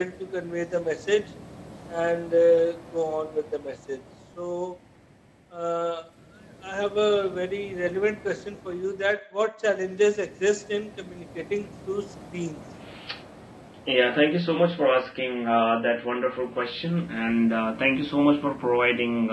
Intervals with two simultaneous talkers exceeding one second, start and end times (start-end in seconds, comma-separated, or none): none